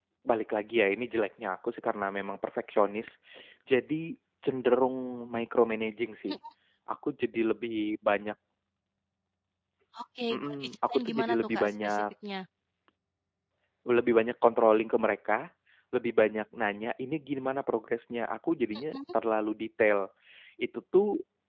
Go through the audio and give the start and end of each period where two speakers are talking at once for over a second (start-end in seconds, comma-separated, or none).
10.3-12.0